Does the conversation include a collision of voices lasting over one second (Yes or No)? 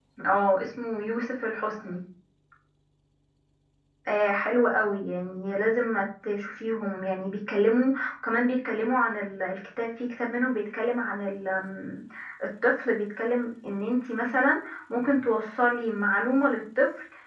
No